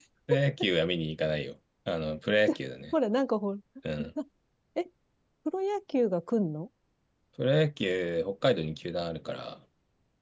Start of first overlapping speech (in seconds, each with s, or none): none